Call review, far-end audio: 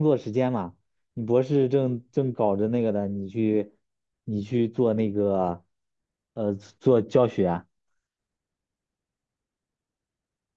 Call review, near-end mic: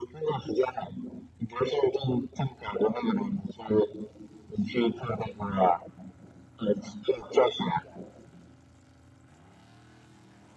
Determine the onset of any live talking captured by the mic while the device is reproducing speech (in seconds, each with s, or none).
none